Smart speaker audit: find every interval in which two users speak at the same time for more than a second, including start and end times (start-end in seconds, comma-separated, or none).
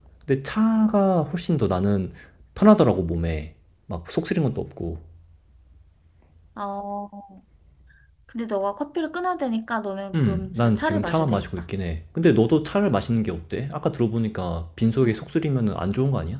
10.2-11.5